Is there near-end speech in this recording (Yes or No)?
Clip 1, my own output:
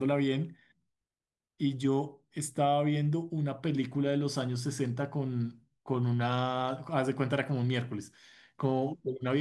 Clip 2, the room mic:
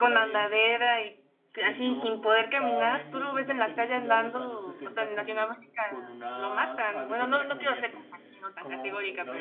Yes